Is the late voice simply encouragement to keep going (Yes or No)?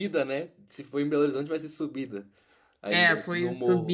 No